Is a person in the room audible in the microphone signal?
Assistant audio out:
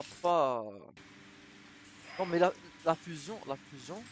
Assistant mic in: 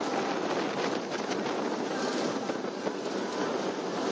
No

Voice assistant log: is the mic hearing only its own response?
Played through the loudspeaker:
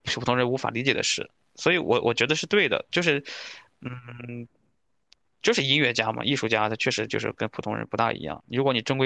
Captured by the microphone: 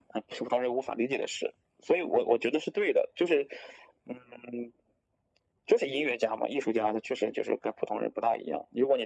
Yes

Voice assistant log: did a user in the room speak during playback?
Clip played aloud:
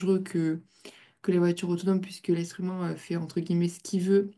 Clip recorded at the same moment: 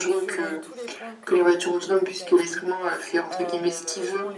Yes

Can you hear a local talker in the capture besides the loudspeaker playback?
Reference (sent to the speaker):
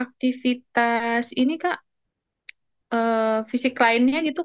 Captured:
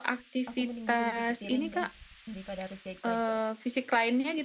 Yes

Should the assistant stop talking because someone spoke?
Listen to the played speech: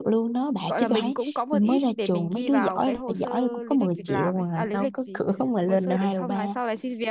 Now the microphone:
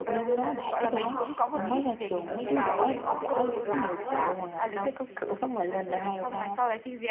Yes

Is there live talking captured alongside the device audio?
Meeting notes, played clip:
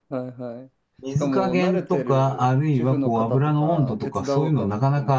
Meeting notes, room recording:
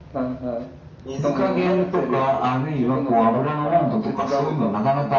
No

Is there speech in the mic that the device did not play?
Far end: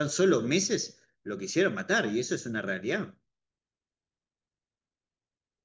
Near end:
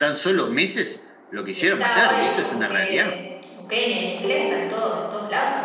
Yes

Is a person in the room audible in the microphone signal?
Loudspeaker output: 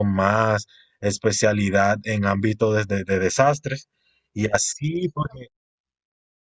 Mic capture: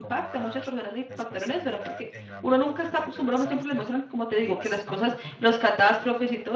Yes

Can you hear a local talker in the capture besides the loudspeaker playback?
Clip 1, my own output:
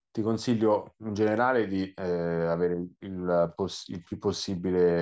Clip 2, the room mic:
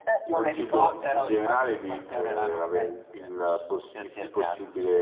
Yes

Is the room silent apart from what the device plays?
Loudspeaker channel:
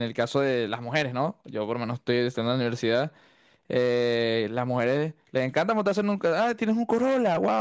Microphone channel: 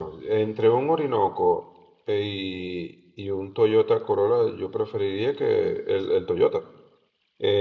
No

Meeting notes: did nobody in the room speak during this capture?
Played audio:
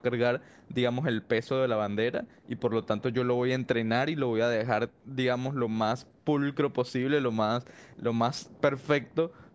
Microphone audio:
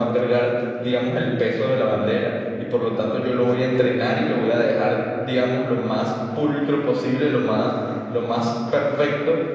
Yes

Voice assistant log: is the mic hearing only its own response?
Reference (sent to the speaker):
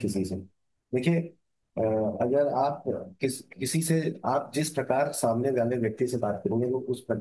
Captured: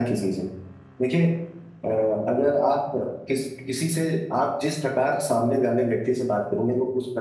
Yes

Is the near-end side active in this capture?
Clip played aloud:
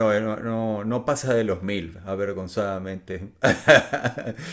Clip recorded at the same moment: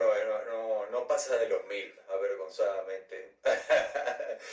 No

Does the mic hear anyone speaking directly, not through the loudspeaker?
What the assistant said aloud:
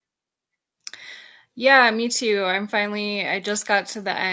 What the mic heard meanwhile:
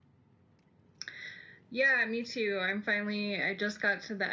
No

